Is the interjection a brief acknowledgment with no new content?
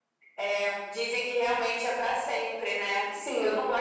Yes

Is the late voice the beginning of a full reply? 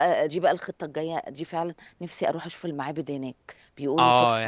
Yes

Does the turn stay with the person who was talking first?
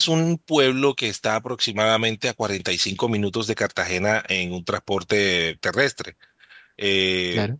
Yes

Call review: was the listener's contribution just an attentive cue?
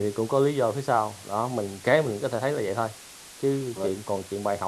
Yes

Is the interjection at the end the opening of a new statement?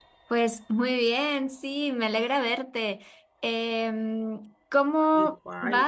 No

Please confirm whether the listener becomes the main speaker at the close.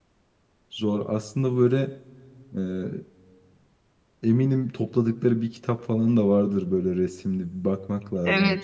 Yes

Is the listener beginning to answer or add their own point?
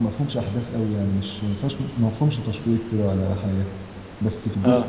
No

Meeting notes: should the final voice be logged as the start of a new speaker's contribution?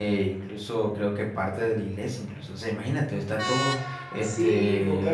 Yes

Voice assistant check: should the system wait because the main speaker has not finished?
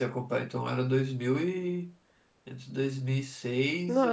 No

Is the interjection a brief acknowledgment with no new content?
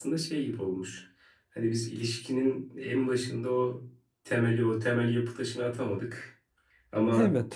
Yes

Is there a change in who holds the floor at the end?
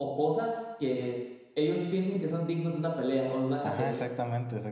Yes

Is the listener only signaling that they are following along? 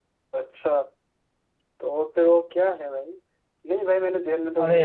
Yes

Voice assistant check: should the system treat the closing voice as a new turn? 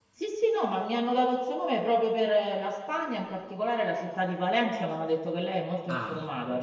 Yes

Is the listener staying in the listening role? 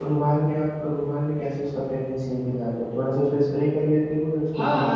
No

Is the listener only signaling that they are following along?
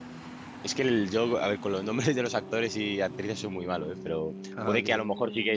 Yes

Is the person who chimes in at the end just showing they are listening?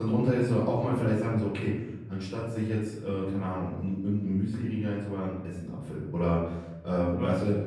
Yes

